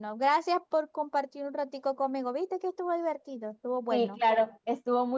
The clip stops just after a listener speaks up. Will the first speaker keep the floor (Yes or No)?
No